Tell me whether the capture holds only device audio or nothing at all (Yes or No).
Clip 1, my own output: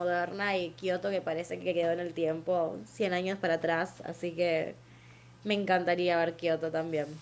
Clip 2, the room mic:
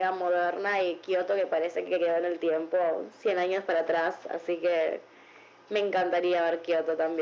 Yes